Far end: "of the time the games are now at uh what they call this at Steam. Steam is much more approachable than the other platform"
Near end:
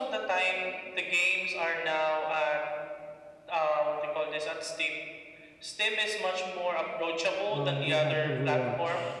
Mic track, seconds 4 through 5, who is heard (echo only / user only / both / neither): echo only